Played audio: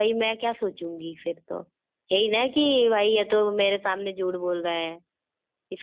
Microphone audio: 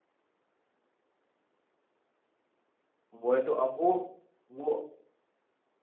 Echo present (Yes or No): No